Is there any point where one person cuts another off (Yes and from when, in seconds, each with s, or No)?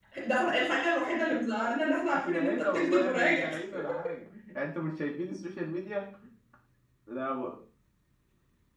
Yes, from 2.1 s